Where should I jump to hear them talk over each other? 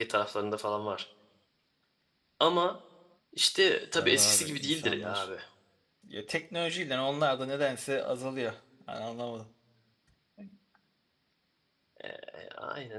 4 s

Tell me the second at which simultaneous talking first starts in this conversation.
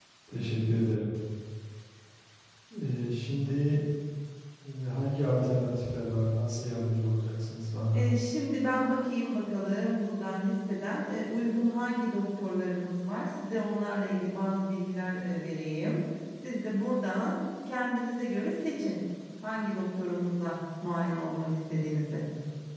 none

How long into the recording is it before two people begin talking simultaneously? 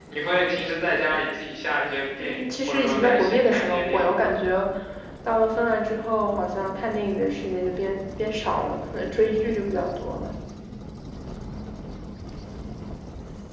2 s

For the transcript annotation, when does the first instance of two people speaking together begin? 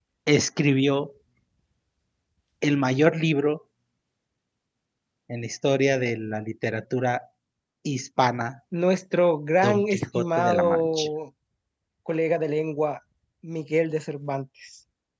10 s

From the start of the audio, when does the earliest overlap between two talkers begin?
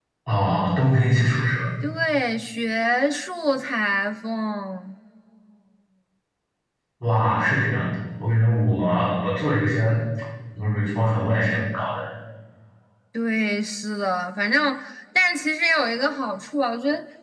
none

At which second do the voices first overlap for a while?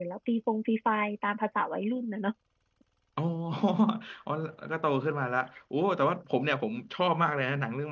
none

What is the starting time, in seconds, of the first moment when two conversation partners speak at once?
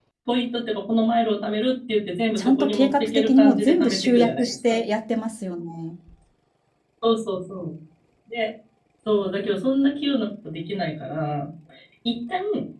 2 s

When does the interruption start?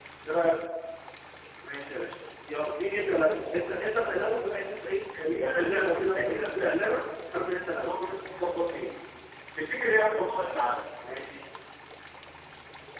5 s

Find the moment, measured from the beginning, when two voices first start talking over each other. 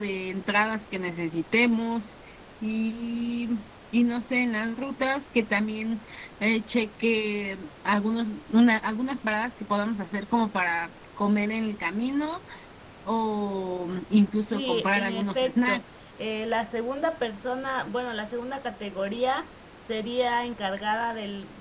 15 s

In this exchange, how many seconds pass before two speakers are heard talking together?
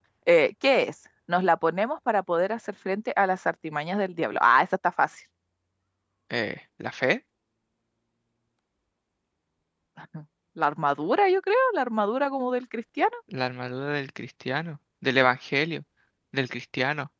none

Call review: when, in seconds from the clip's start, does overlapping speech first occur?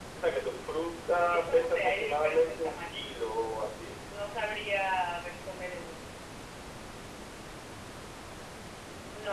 1 s

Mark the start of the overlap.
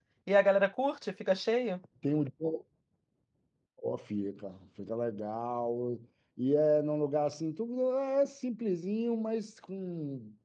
none

